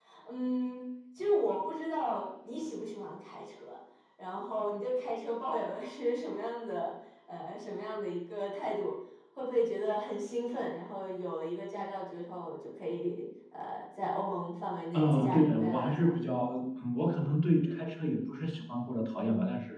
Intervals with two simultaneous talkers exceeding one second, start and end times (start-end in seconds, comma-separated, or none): 14.9-16.1